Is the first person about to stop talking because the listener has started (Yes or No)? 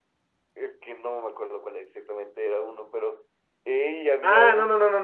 Yes